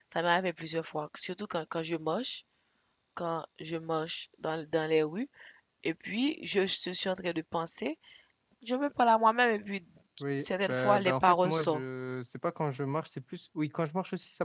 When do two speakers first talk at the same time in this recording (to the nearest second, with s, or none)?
10 s